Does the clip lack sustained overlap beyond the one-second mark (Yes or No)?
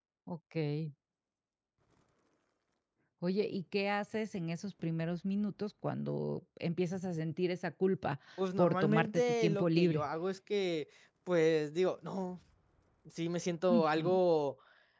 No